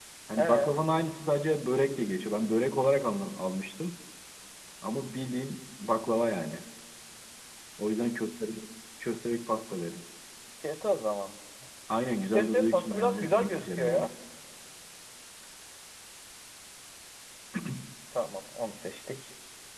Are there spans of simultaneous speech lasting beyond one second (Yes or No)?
Yes